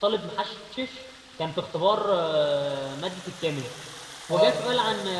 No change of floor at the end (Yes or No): Yes